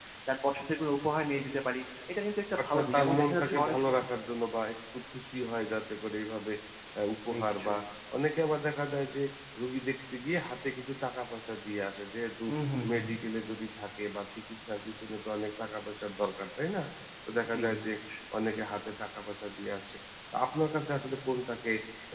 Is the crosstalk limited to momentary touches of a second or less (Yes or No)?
No